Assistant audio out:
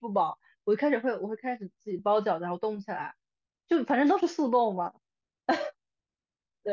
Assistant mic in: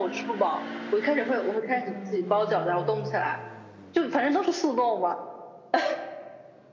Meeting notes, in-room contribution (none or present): none